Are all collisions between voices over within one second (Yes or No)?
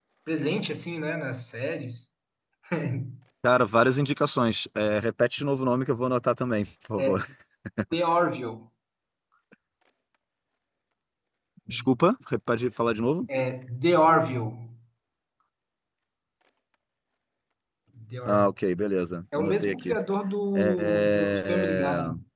No